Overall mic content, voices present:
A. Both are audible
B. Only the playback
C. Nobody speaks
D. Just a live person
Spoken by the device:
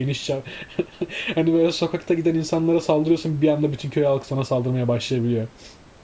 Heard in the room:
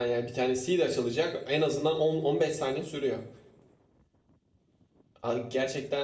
D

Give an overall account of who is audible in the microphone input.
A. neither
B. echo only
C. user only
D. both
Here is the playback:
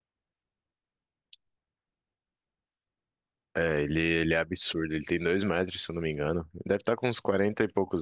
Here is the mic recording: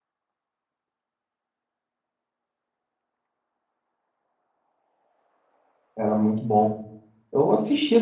C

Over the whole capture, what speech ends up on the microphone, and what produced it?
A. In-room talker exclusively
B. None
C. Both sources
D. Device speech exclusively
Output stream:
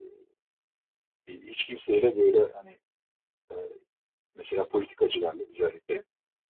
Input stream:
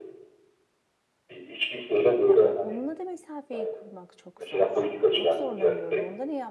C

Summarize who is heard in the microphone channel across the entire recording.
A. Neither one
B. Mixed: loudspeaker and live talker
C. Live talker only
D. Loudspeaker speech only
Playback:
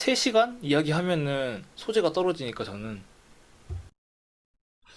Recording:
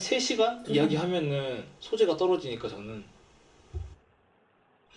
B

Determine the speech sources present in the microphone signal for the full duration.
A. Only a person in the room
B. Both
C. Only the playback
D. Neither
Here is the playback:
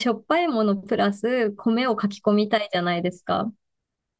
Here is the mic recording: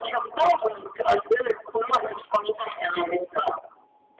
C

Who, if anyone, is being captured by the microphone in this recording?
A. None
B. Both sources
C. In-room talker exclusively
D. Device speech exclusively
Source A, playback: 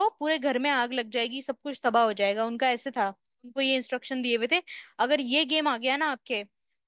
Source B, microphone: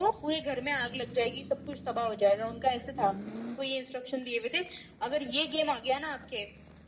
D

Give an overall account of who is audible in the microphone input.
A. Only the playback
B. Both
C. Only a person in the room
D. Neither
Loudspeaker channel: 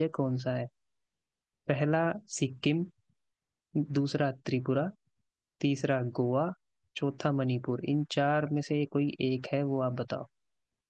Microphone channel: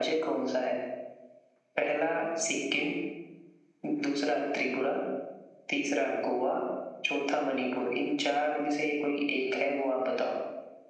A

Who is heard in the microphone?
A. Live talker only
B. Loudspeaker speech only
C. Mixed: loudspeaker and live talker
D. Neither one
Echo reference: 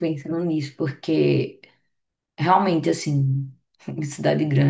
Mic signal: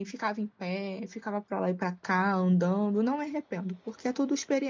A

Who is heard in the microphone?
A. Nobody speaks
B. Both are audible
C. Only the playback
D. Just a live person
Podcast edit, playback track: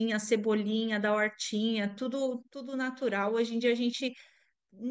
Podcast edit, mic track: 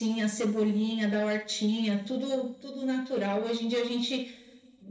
C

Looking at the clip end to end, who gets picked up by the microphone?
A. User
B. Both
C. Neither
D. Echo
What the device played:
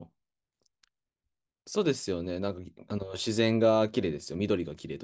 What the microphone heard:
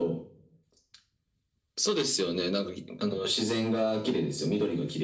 D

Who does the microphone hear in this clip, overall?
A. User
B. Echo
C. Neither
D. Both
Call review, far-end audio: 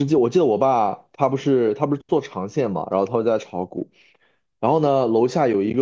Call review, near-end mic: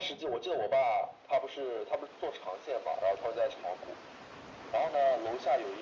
B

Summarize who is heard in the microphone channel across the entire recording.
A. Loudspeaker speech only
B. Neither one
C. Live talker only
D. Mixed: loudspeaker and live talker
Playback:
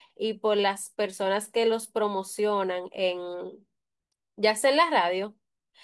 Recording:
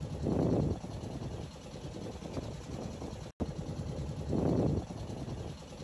B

